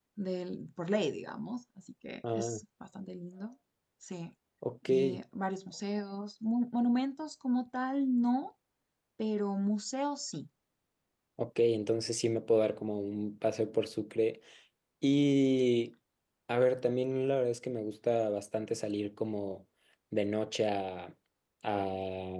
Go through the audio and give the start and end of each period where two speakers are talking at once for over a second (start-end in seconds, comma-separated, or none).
none